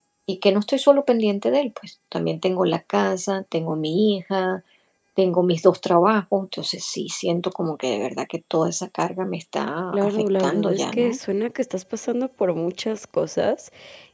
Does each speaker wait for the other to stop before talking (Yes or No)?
No